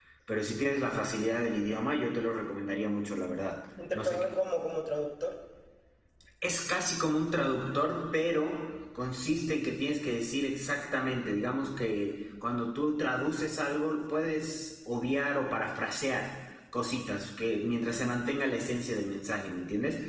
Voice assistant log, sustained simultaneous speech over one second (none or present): none